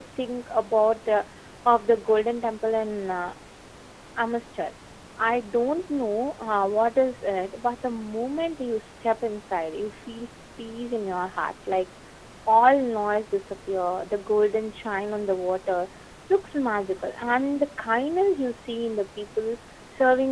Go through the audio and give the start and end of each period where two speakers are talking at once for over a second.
none

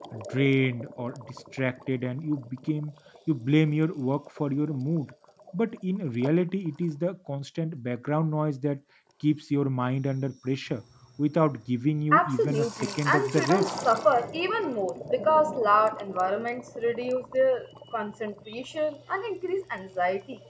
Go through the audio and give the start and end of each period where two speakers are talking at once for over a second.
12.1-13.7

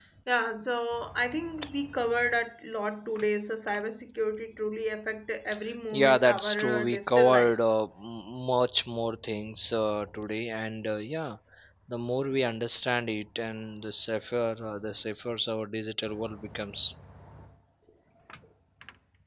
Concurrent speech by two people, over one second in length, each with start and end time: 5.9-7.7

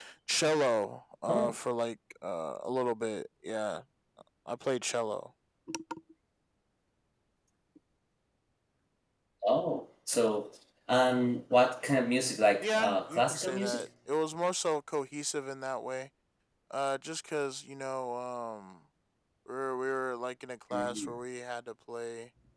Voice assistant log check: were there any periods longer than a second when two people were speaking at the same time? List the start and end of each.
12.6-13.8

